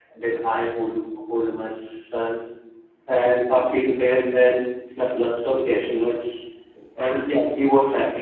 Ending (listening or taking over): listening